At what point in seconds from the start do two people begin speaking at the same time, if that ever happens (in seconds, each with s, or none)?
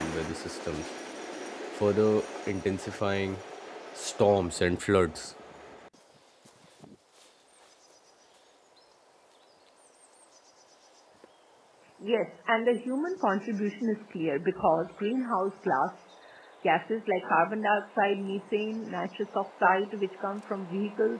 none